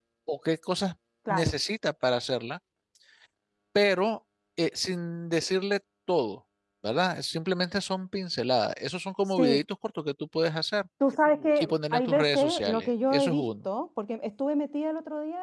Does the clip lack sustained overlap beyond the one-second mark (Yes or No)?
No